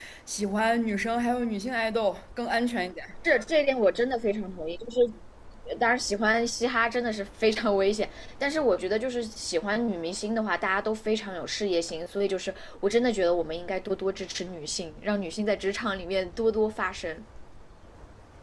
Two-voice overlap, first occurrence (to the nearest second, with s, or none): none